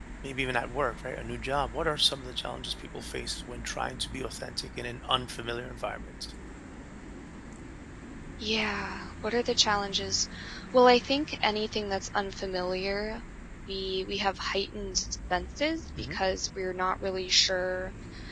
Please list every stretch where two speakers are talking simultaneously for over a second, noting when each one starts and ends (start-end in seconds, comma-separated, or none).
none